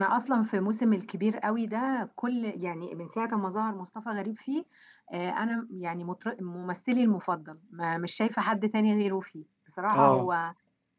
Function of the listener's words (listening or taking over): listening